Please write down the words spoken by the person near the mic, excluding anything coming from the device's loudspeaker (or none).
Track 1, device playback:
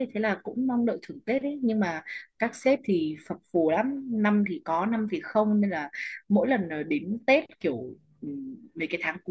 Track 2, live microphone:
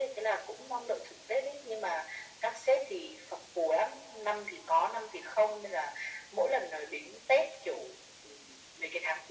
none